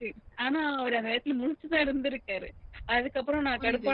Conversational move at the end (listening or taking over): listening